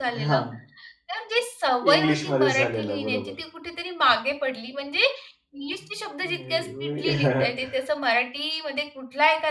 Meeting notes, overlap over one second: present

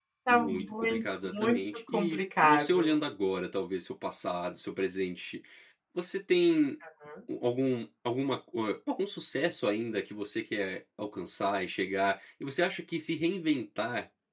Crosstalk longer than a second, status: present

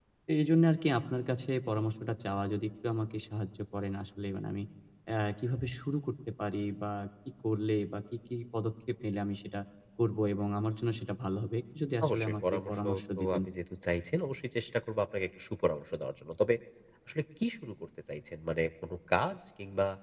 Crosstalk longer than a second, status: present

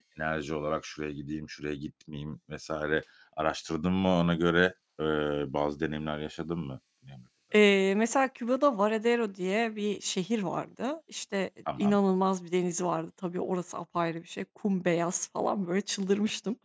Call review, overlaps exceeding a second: none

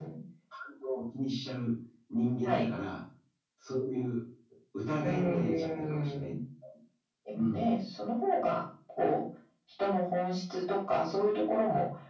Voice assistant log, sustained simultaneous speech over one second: present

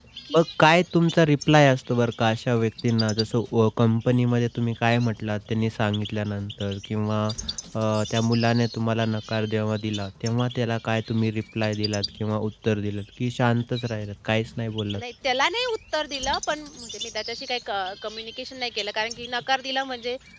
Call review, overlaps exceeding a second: none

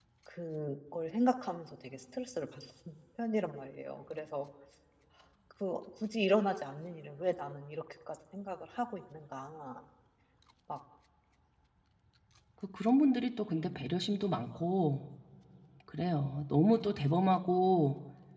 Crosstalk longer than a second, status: none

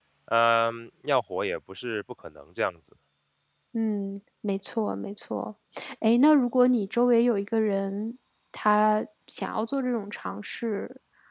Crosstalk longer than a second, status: none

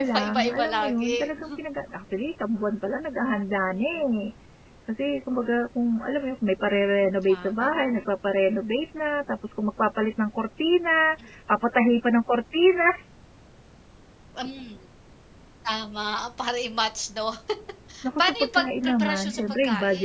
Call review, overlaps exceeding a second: present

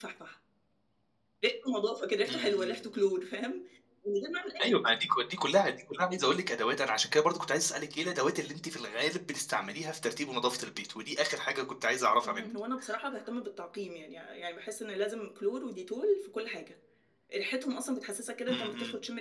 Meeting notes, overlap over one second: none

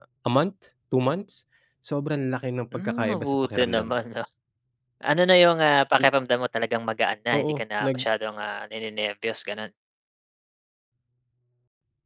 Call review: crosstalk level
present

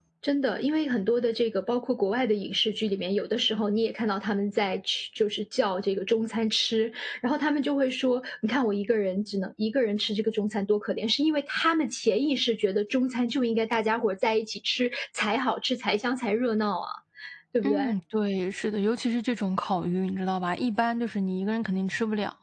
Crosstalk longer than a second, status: none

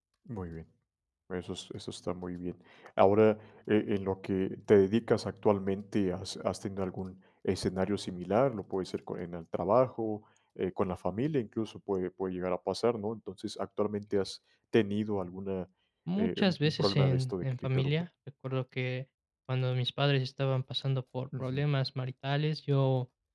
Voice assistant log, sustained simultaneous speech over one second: present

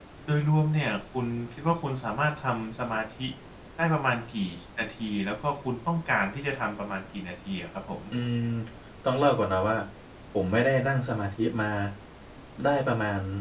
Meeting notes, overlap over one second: none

